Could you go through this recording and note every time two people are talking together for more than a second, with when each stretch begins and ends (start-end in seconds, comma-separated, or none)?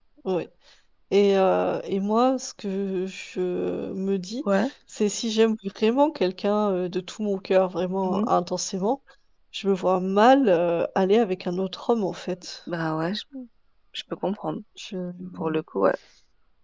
none